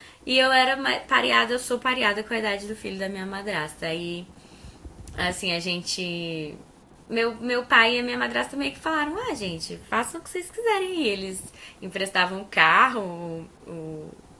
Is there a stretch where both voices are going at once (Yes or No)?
No